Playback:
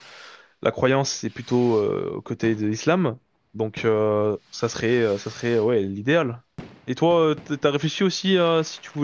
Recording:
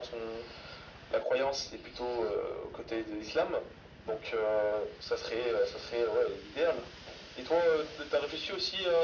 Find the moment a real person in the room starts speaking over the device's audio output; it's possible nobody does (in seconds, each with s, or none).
none